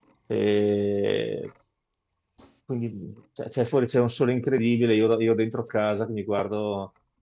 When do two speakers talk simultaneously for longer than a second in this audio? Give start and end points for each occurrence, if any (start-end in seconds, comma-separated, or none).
none